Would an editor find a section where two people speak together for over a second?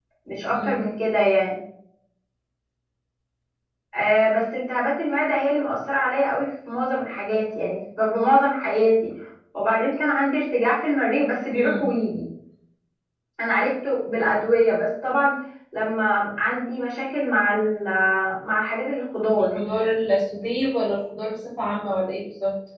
No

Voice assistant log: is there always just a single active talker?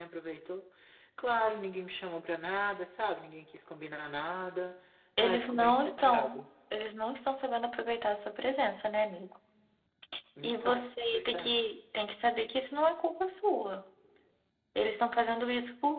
No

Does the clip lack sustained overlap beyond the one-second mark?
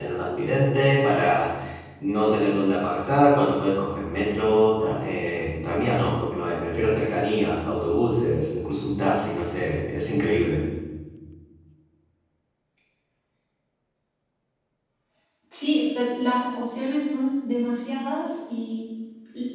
Yes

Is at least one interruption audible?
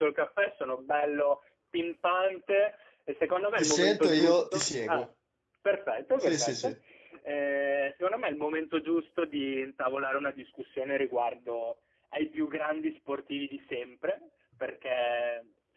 Yes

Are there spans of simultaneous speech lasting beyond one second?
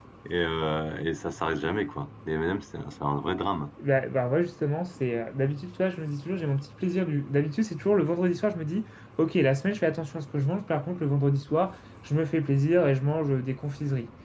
No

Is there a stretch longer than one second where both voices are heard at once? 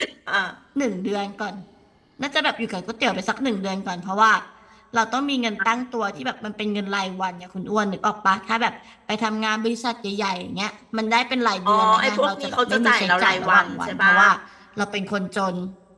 Yes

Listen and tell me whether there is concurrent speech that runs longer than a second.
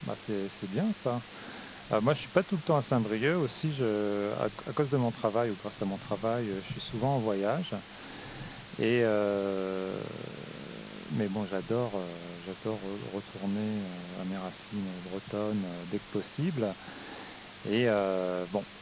No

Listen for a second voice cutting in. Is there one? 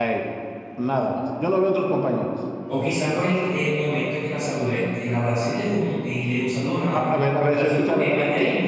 Yes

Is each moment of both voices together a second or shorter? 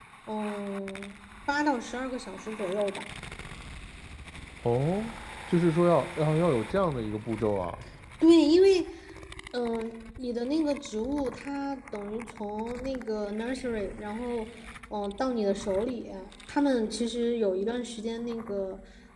Yes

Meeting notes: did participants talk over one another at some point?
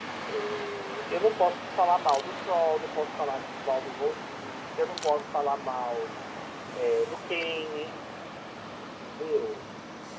No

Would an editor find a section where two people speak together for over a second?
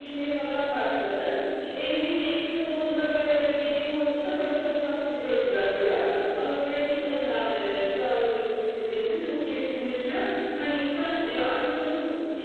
No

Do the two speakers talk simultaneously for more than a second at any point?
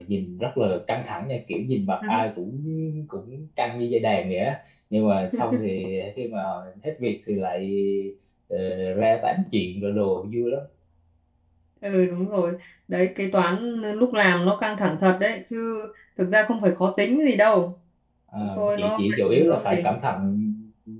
Yes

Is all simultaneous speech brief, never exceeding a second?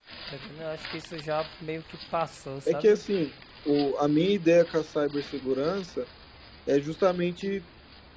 Yes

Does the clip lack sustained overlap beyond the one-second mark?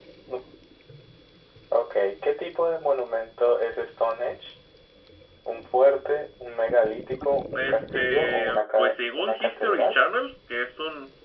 No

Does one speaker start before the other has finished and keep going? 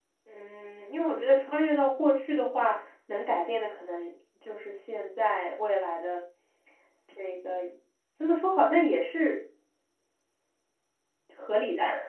No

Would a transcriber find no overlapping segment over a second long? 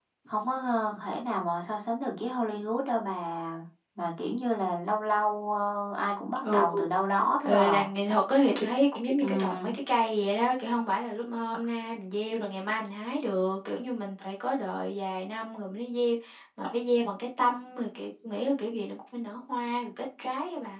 Yes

